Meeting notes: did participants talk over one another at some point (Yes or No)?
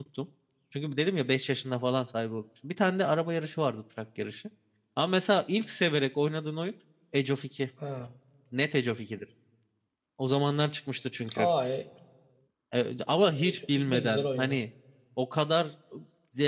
Yes